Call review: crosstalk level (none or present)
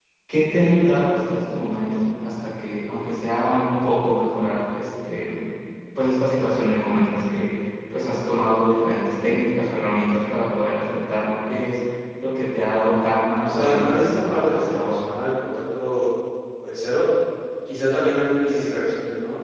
present